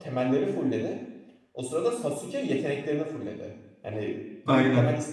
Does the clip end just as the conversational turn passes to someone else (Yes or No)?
No